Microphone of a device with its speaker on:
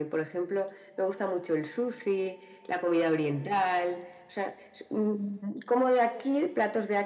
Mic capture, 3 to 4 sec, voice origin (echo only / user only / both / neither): echo only